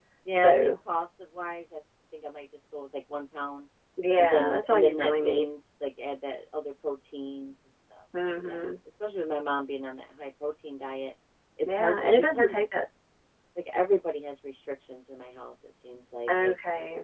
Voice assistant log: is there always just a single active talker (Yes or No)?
No